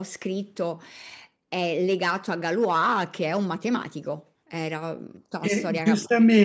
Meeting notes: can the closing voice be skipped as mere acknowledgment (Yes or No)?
No